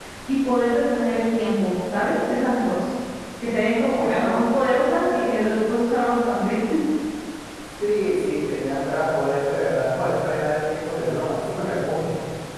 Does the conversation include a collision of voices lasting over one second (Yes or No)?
No